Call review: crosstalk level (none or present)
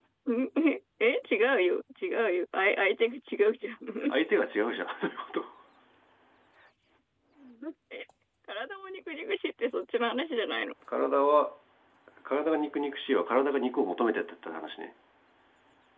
none